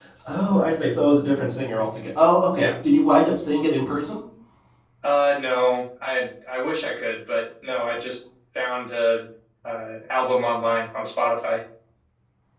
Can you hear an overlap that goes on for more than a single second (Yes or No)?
No